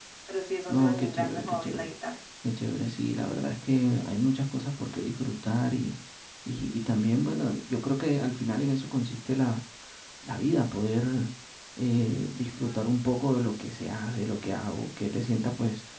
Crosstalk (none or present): present